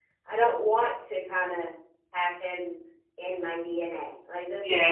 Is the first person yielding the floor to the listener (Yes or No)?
Yes